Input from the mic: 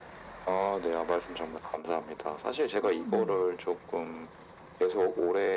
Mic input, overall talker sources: both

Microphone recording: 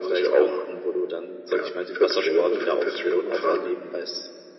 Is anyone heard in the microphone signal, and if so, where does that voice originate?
echo only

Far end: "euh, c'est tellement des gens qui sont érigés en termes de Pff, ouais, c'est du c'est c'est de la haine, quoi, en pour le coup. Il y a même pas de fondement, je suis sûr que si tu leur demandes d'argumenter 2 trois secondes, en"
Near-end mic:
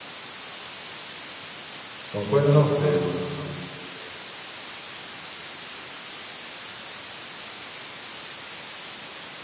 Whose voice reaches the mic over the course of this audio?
user only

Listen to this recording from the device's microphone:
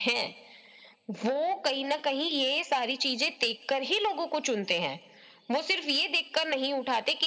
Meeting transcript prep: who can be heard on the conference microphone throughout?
echo only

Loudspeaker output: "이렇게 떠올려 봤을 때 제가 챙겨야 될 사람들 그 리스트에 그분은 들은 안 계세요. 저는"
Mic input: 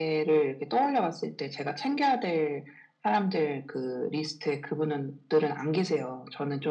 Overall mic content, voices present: echo only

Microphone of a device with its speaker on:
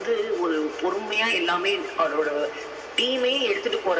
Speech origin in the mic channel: echo only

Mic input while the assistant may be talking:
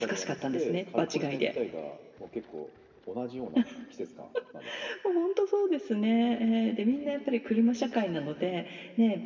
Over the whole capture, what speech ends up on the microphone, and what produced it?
echo only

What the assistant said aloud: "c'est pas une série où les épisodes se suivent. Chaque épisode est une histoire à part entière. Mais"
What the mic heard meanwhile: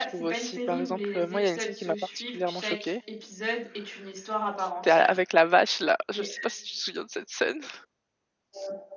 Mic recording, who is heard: both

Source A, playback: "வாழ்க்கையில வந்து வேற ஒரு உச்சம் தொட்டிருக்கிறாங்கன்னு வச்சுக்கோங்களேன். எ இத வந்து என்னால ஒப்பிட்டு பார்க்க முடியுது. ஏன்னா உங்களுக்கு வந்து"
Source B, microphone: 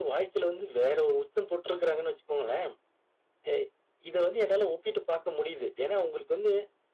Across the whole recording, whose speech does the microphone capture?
echo only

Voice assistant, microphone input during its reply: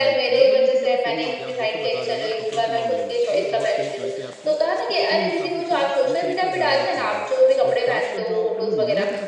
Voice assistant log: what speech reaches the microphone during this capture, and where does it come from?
both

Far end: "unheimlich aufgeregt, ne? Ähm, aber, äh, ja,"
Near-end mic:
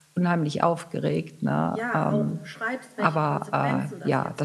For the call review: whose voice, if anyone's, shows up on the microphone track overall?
both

